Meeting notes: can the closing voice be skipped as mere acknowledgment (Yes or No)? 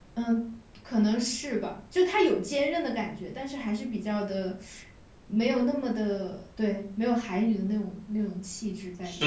No